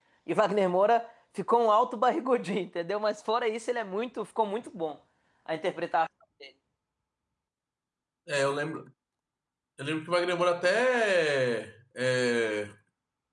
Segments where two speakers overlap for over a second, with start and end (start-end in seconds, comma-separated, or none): none